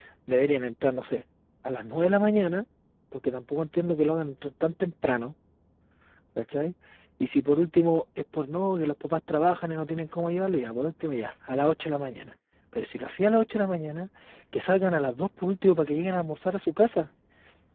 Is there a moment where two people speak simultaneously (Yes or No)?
No